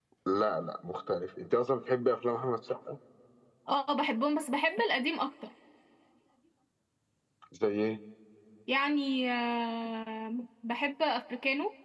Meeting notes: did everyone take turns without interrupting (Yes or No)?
Yes